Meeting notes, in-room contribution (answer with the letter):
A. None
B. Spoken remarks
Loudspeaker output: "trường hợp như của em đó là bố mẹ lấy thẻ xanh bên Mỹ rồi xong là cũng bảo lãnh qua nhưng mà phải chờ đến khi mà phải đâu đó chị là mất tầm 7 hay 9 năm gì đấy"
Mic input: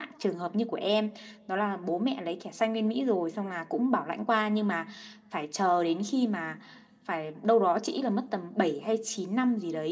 A